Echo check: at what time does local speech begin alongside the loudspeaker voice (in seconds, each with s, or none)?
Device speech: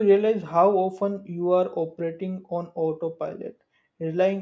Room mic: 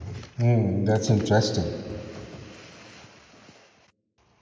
0.3 s